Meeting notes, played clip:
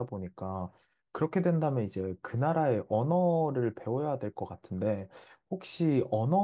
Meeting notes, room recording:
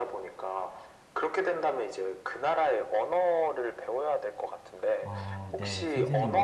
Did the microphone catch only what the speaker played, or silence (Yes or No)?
No